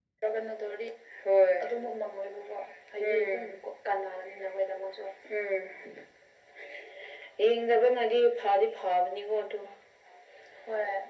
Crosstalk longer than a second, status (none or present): none